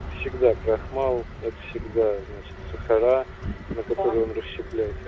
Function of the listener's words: listening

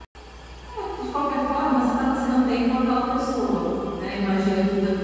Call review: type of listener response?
listening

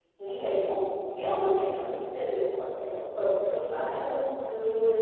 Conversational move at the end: listening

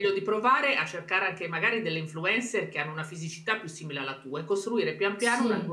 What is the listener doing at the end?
listening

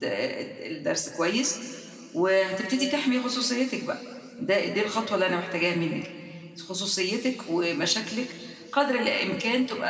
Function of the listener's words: listening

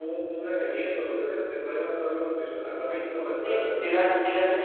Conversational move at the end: taking over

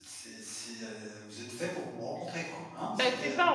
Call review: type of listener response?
taking over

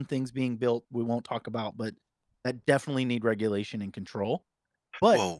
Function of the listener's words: listening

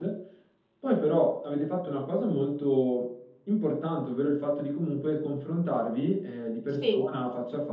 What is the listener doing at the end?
listening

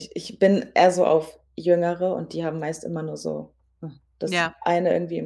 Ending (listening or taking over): listening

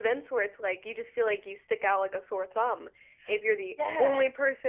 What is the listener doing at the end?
listening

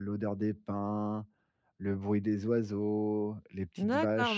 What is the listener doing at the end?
taking over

